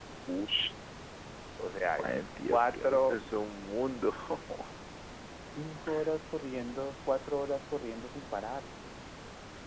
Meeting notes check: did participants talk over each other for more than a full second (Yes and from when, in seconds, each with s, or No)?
Yes, from 2.0 s